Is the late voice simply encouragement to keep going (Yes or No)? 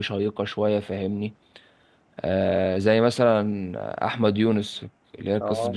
Yes